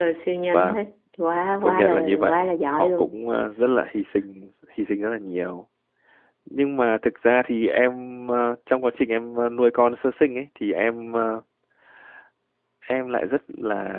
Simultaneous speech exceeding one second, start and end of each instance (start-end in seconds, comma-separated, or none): 1.6-3.1